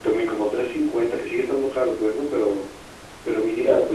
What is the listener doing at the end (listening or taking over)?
listening